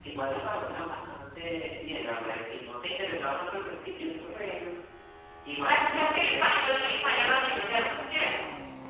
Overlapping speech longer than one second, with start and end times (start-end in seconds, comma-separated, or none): 5.7-7.4